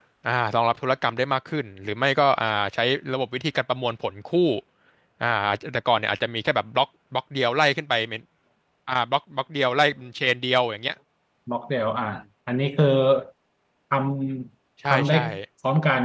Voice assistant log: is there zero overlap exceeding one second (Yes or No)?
Yes